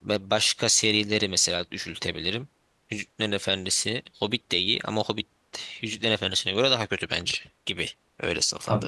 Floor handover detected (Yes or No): Yes